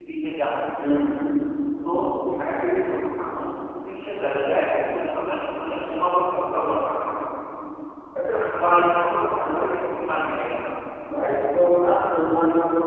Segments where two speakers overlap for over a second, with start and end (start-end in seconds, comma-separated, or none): none